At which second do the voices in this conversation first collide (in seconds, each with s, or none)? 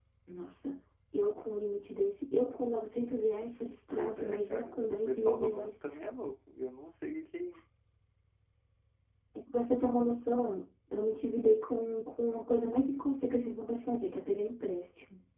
3.9 s